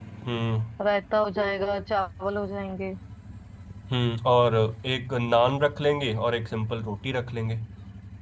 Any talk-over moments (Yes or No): No